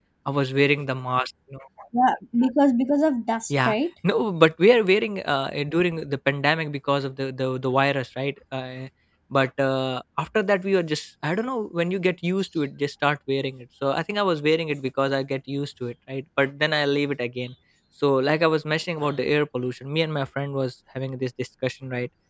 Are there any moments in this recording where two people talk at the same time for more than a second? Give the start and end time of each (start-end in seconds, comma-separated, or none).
none